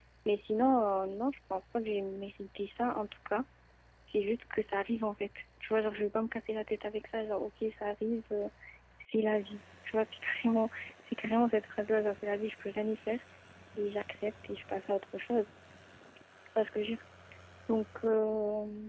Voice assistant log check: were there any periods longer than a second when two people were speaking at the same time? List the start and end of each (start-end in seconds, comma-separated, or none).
none